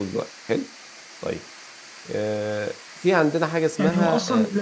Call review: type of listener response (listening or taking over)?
taking over